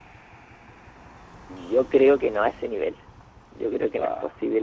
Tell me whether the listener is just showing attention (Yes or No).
Yes